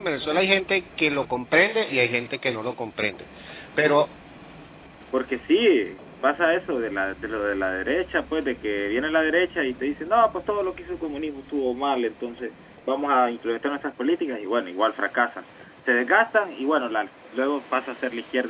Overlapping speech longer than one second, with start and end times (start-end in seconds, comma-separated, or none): none